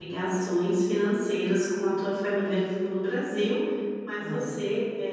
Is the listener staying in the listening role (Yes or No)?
Yes